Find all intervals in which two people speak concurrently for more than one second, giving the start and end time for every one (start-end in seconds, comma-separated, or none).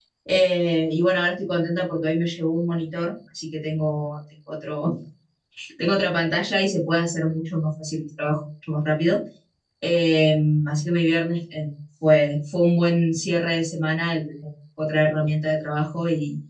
none